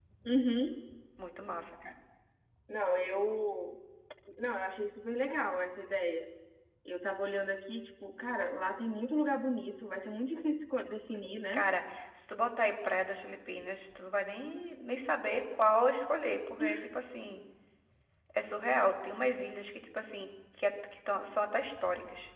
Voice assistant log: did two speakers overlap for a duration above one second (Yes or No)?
No